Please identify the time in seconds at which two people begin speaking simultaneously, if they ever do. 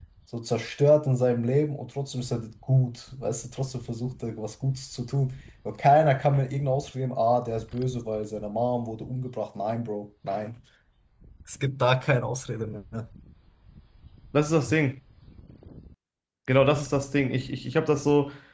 none

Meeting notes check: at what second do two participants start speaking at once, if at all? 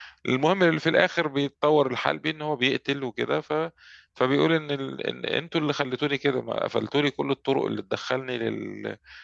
none

